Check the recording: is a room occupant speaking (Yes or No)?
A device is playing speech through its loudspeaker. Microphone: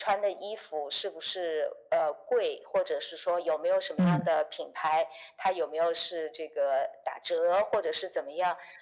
Yes